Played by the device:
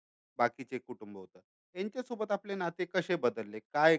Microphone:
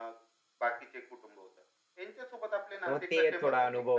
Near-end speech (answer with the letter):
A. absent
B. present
B